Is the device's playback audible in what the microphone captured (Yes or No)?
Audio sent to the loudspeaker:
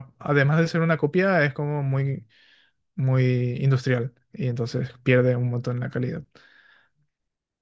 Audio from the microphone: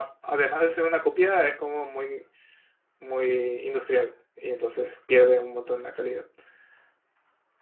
Yes